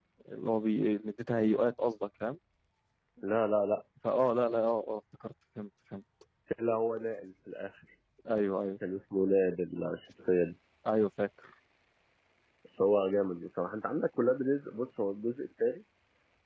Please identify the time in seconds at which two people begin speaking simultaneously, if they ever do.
none

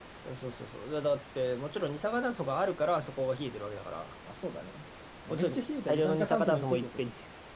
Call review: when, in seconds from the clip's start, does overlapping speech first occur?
5.3 s

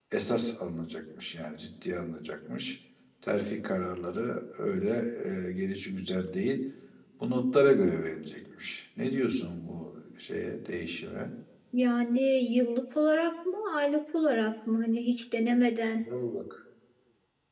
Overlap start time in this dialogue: none

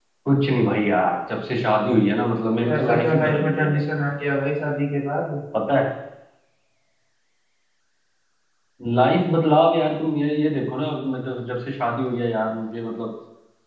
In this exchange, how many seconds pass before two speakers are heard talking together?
2.6 s

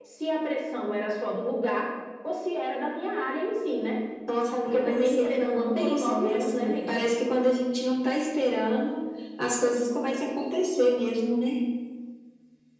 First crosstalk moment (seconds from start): 4.6 s

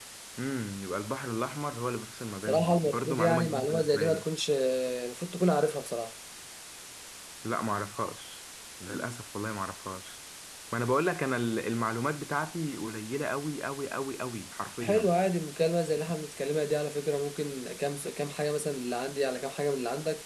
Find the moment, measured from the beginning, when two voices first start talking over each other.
2.5 s

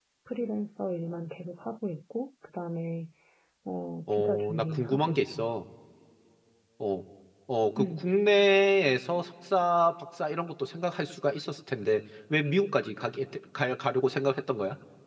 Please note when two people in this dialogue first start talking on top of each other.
4.1 s

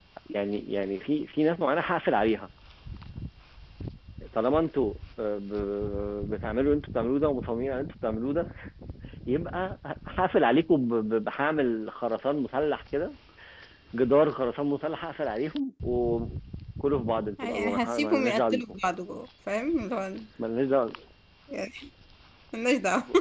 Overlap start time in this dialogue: 17.4 s

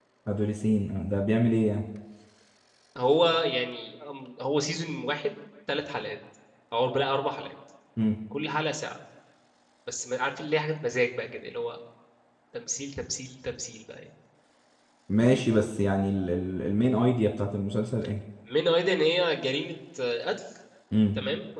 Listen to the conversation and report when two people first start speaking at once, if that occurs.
none

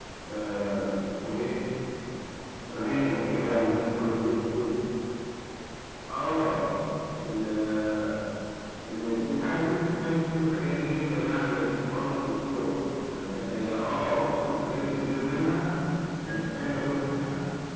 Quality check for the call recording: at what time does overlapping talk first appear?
2.7 s

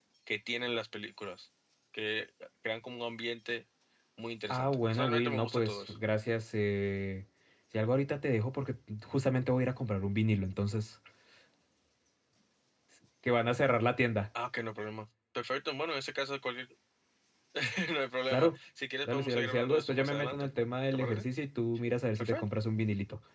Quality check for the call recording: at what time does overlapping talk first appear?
4.5 s

